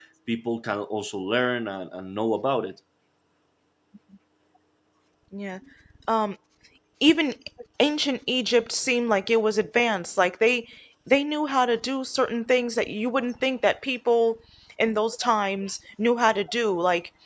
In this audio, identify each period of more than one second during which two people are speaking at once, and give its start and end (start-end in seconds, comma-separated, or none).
none